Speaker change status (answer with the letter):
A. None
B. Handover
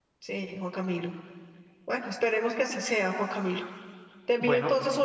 A